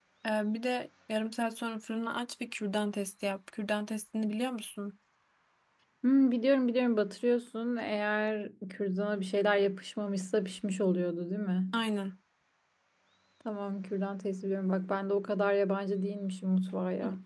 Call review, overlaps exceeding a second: none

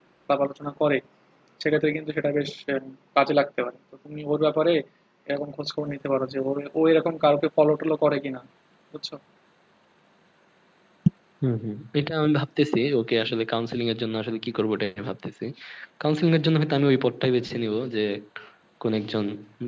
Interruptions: none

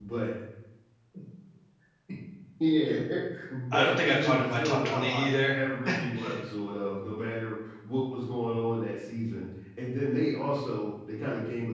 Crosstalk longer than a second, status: present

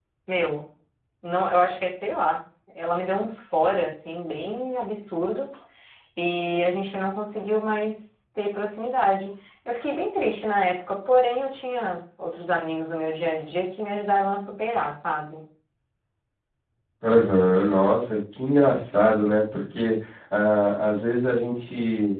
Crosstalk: none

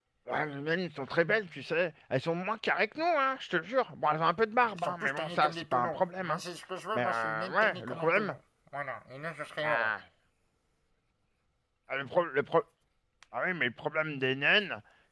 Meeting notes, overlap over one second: present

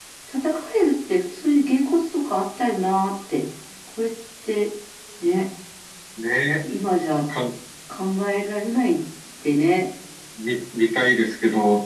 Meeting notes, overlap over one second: none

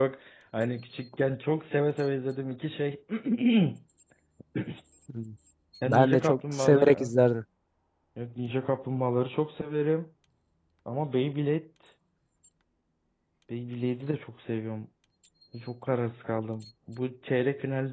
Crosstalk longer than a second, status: present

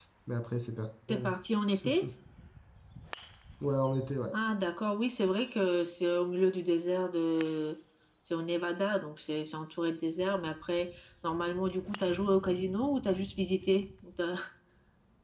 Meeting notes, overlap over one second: none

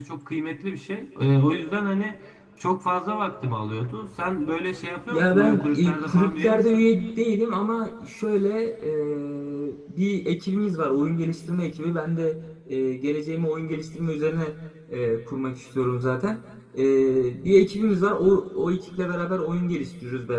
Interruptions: present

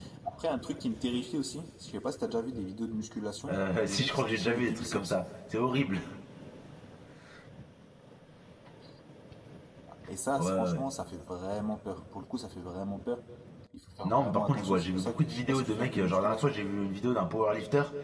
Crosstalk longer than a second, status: present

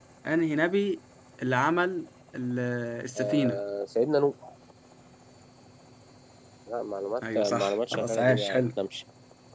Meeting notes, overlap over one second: present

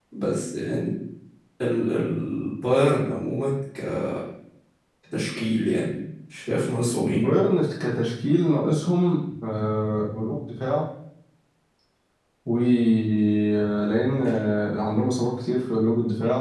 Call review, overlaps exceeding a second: none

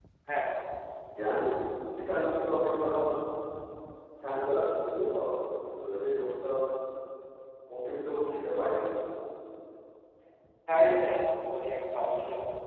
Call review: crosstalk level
none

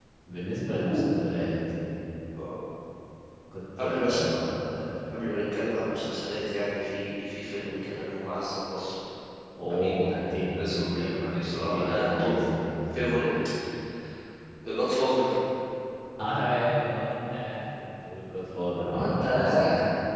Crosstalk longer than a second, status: present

